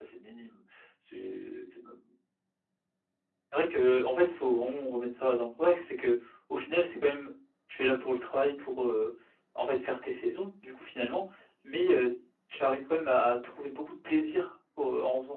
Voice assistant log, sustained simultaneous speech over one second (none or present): none